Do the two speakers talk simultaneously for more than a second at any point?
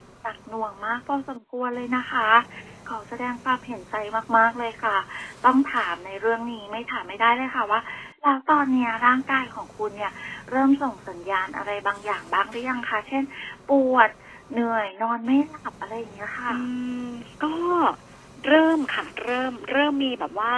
No

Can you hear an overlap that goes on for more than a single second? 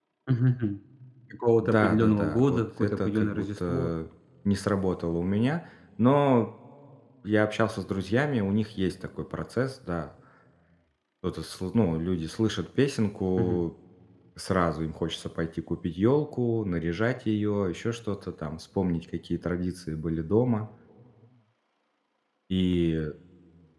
Yes, from 1.6 s

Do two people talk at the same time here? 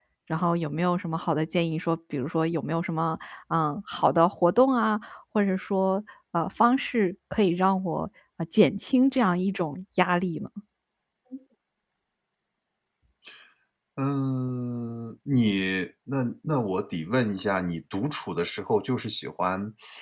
No

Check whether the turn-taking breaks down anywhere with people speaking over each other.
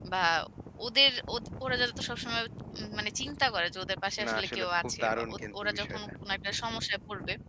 Yes, from 4.2 s

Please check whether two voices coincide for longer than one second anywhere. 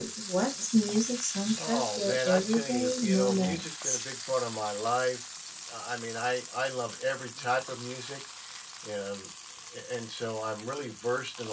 Yes, from 1.6 s

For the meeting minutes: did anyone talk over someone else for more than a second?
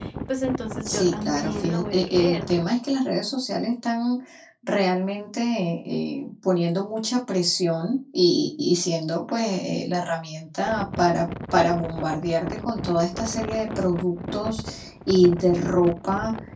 Yes, from 0.8 s

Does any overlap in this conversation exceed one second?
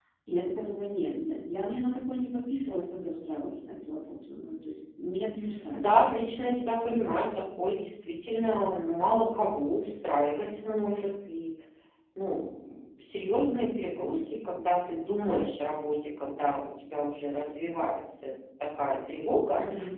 No

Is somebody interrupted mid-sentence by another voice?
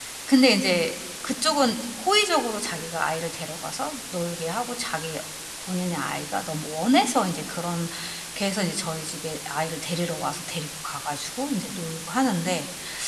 No

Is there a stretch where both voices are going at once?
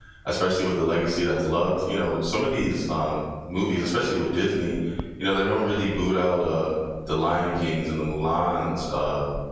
No

